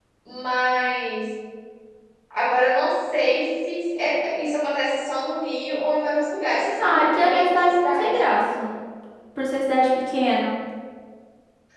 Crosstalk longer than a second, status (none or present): present